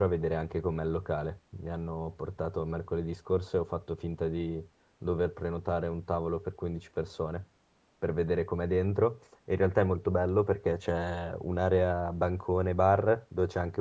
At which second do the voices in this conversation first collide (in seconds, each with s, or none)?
none